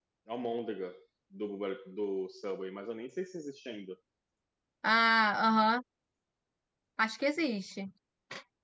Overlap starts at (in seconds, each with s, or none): none